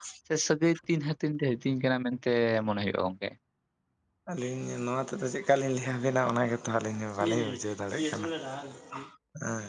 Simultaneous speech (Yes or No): No